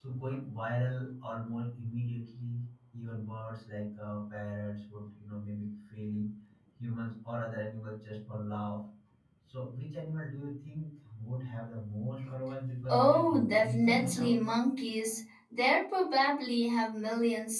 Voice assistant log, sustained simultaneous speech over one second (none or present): present